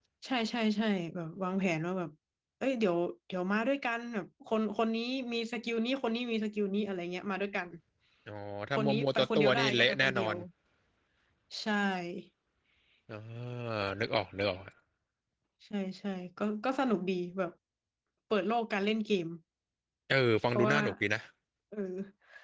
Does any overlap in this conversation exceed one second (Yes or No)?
Yes